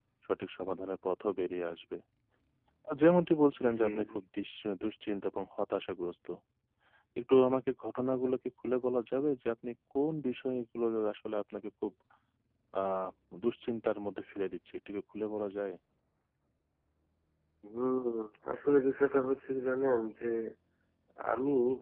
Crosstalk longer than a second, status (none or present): none